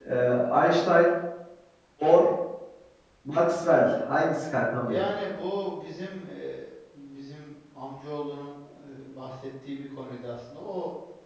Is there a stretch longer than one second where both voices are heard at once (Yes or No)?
No